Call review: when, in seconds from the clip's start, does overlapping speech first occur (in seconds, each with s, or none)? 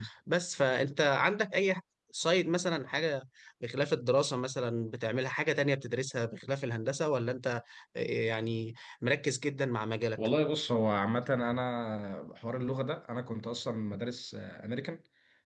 none